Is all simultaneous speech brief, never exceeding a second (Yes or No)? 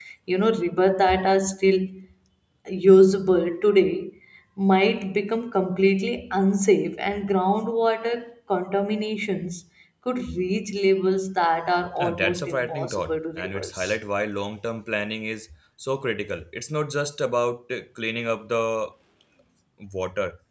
No